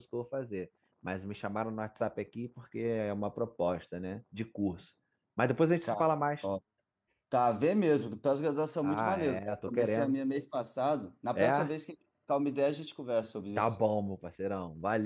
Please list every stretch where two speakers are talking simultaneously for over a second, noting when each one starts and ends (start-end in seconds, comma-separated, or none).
8.8-10.2